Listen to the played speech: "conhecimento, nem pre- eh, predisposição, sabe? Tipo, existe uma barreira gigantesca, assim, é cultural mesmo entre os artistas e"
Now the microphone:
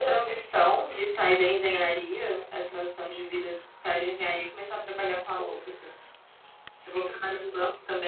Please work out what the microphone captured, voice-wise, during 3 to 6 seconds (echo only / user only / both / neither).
user only